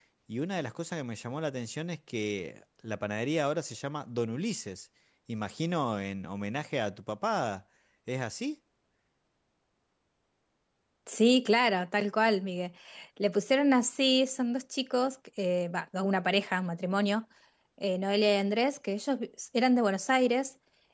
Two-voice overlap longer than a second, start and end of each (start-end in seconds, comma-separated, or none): none